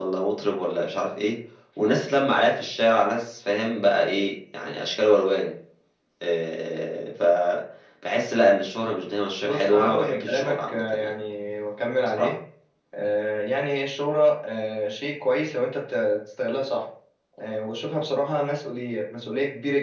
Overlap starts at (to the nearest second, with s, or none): 9 s